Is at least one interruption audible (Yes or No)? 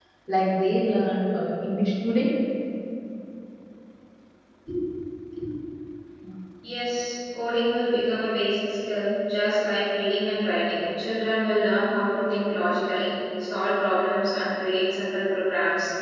No